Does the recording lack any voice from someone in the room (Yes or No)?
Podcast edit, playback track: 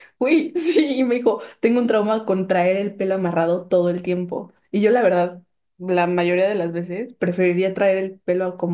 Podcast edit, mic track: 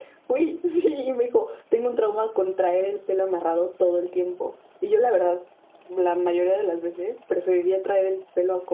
Yes